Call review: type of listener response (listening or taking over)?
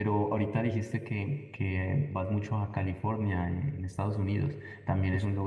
listening